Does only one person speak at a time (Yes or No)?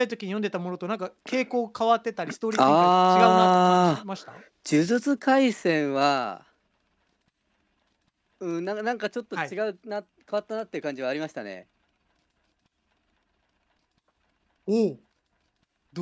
No